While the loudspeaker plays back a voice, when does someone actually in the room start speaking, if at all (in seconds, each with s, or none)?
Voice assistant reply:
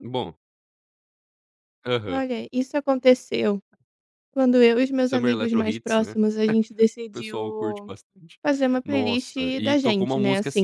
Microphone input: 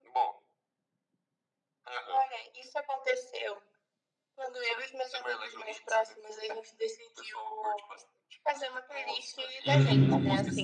9.7 s